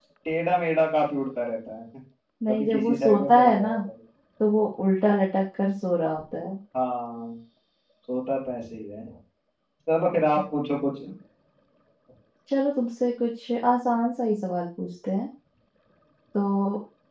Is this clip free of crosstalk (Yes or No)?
No